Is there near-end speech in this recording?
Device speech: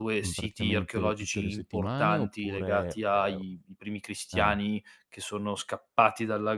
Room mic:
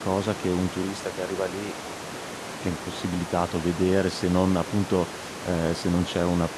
Yes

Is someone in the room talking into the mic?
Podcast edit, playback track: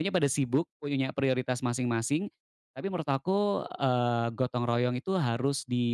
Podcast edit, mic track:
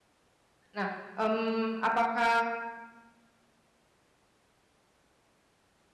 Yes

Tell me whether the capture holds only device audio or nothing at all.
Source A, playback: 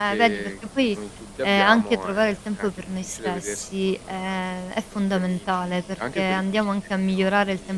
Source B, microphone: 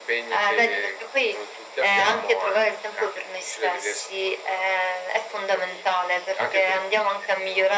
Yes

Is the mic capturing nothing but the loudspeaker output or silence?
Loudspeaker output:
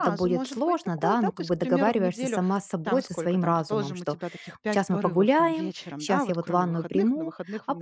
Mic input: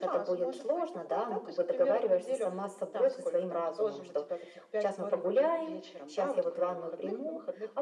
Yes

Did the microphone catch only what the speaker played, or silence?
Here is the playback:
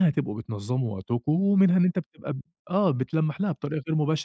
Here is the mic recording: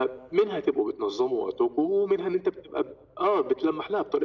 Yes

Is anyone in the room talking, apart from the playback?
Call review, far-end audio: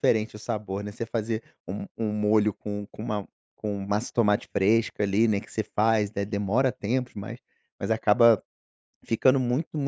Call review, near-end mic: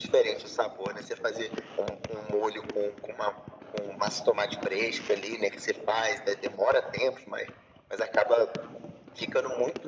No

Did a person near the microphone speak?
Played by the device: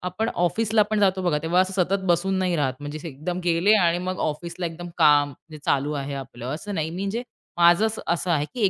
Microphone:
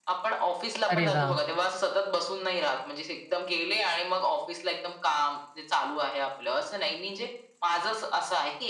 Yes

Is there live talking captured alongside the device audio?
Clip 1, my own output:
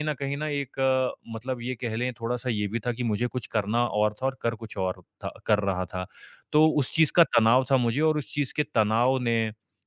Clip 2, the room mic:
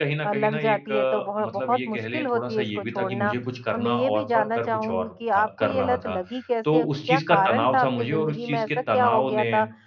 Yes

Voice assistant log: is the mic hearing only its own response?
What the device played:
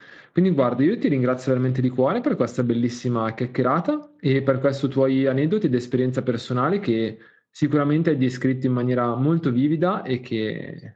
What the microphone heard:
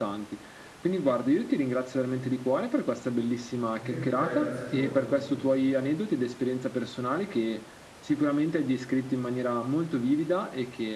No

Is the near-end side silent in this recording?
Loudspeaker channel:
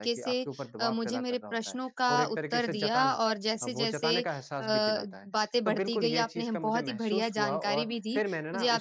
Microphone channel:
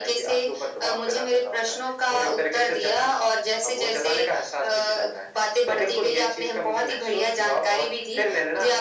Yes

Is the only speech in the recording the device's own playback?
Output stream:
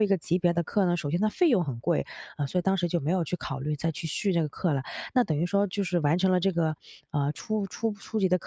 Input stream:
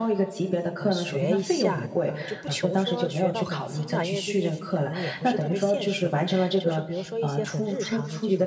No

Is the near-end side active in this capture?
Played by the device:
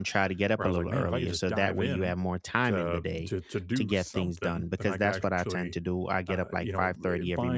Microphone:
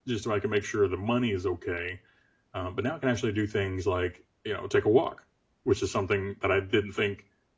Yes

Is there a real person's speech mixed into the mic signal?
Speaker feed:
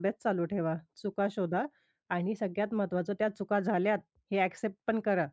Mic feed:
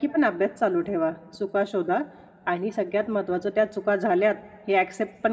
No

